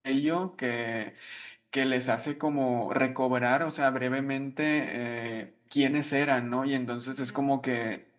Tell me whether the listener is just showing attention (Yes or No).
Yes